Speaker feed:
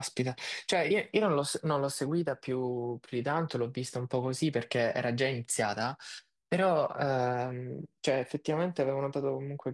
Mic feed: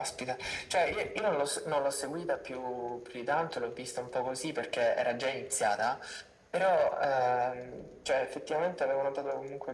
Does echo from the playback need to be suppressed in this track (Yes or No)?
Yes